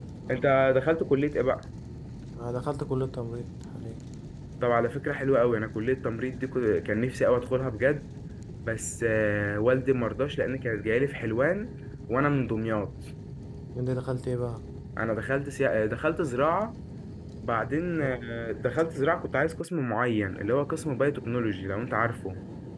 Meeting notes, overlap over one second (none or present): none